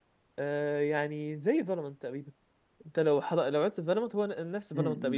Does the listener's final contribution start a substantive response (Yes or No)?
Yes